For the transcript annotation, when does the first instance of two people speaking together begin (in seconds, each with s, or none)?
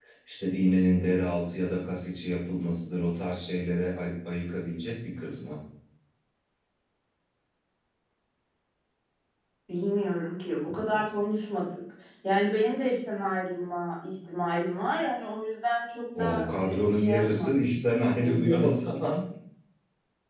16.2 s